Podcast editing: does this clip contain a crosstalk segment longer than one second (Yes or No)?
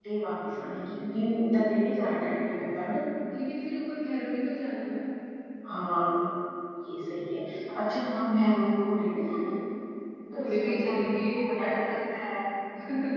Yes